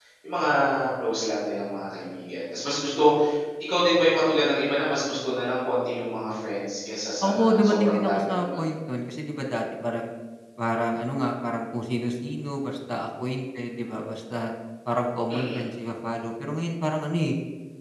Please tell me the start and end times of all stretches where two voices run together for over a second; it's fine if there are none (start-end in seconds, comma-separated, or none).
7.2-8.6